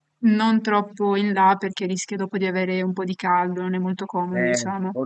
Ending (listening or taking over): taking over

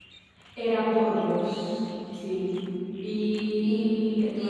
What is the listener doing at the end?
taking over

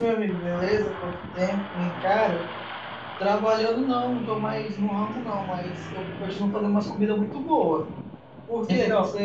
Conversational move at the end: taking over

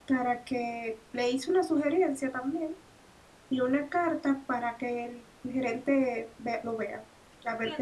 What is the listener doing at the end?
taking over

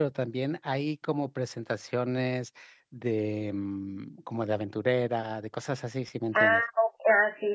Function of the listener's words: taking over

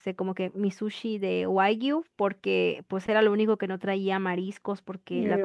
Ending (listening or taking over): listening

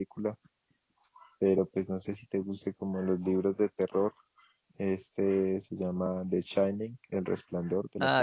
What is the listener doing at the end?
taking over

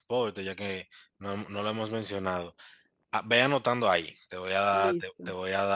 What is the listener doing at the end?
listening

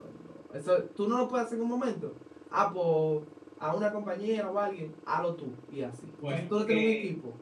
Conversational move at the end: taking over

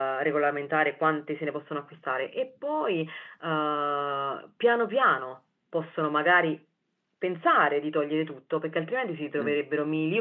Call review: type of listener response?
listening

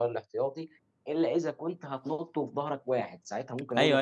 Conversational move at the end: taking over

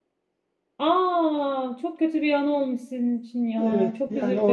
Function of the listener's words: taking over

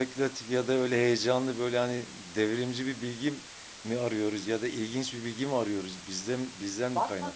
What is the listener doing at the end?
taking over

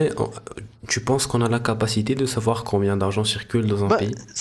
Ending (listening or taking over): taking over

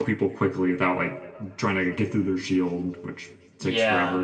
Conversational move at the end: taking over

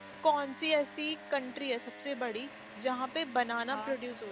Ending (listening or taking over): listening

